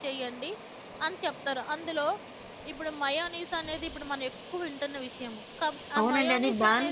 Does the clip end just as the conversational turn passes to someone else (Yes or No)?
Yes